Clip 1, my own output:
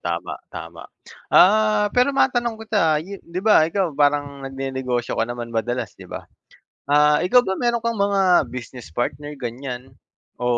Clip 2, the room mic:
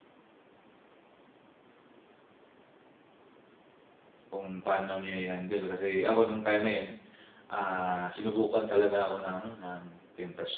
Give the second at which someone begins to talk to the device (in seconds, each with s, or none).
4.3 s